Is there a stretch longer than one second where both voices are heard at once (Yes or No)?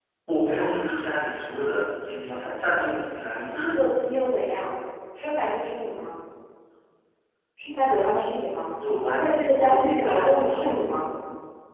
Yes